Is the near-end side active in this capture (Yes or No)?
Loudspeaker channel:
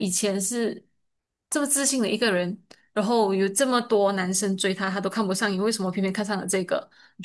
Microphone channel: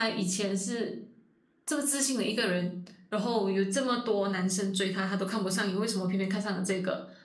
No